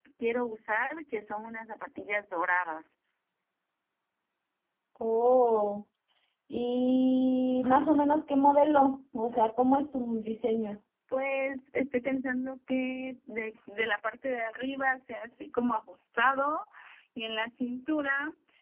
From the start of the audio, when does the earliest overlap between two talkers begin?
none

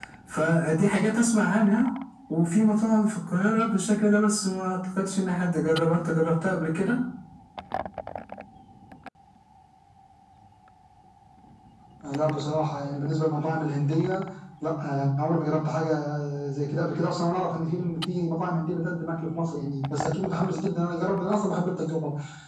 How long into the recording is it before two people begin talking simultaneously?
none

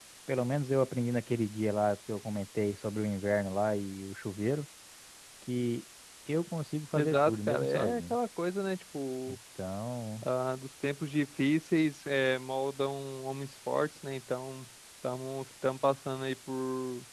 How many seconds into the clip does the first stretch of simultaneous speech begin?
7 s

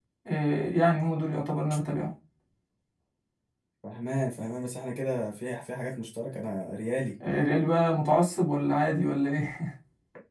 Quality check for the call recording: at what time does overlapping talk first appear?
none

